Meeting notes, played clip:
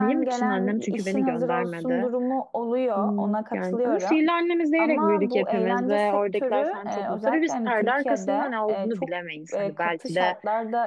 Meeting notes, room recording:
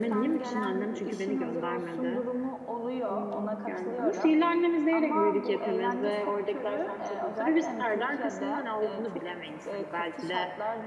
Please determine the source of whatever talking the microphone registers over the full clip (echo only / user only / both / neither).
echo only